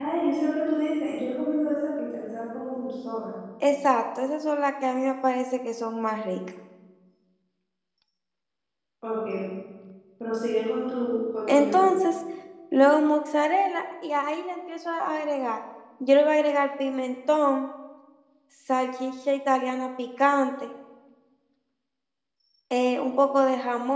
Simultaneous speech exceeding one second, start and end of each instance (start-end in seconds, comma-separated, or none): none